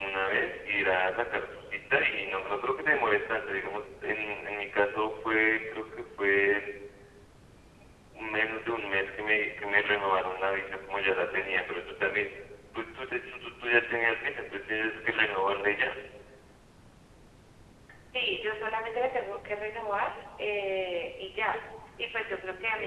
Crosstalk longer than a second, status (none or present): none